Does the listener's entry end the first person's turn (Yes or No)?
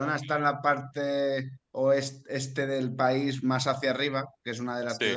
No